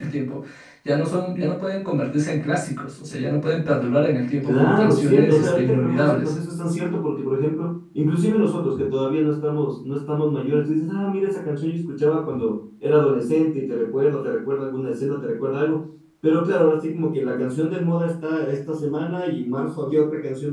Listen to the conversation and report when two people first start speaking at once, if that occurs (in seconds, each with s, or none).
4.4 s